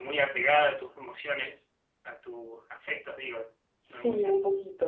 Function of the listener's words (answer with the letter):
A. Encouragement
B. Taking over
B